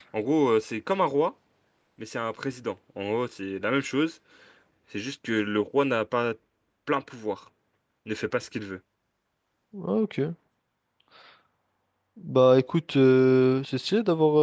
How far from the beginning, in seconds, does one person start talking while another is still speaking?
none

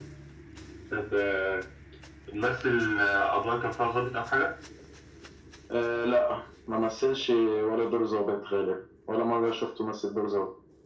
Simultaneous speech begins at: none

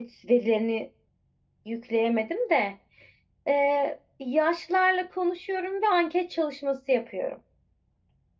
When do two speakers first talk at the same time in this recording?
none

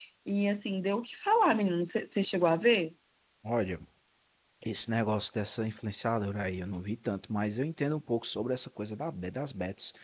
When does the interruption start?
none

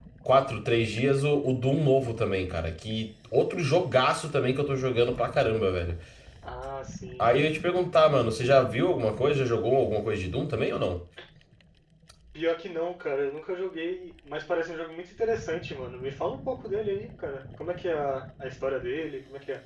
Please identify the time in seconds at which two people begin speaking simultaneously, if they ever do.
none

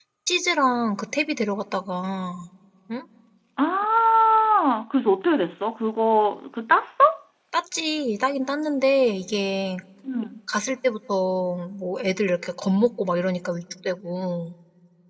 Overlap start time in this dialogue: none

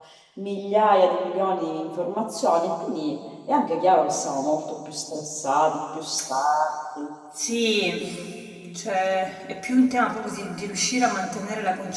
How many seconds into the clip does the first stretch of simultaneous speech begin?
none

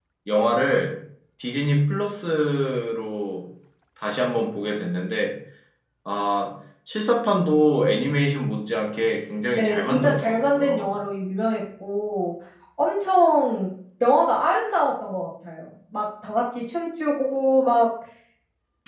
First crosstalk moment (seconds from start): 9.5 s

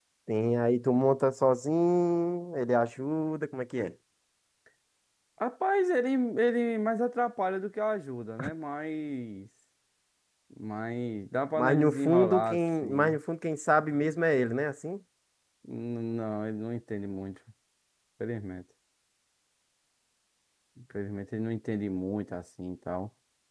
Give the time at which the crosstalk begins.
11.6 s

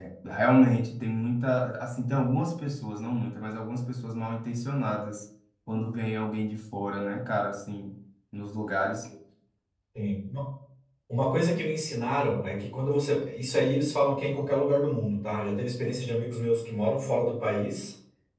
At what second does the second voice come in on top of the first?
none

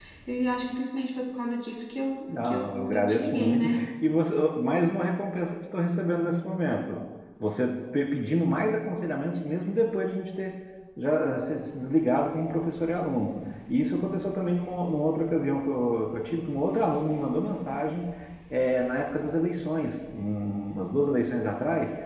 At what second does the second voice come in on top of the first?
2.3 s

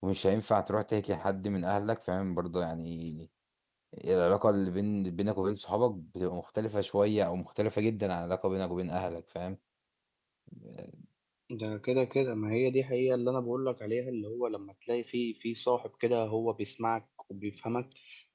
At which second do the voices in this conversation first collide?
none

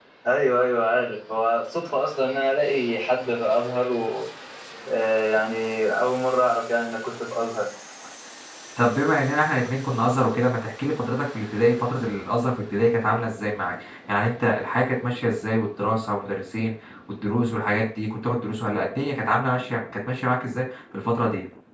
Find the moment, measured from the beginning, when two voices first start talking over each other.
none

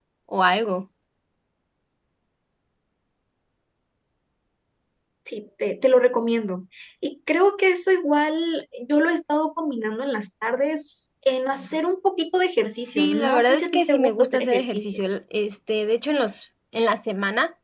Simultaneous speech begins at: 12.9 s

